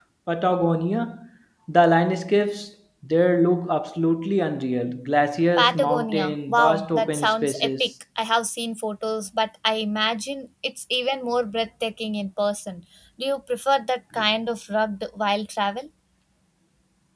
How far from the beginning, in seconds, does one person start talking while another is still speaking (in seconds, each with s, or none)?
5.6 s